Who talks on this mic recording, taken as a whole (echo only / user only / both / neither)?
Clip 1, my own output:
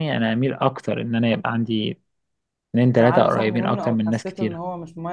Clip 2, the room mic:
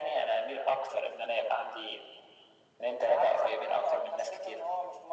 echo only